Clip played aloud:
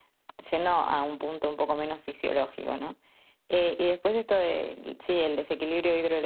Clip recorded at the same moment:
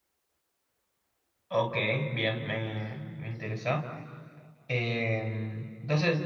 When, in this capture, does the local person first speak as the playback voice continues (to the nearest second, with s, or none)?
1 s